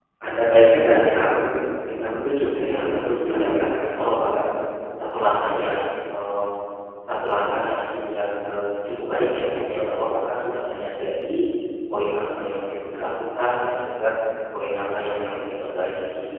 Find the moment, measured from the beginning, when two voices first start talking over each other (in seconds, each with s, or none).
2.6 s